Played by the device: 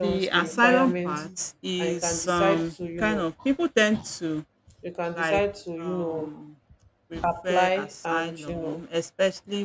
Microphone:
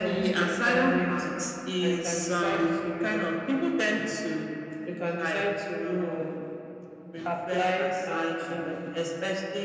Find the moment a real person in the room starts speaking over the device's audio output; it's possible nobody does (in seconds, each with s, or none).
none